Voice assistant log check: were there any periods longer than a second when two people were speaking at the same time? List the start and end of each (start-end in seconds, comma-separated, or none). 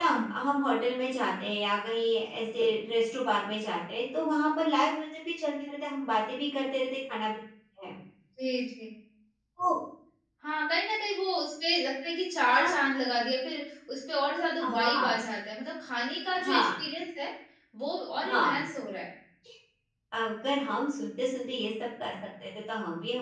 none